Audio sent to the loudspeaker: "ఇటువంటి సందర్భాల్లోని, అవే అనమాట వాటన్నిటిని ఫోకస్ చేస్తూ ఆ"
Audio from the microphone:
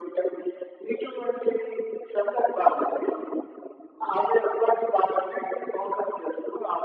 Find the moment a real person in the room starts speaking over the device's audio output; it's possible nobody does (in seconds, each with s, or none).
none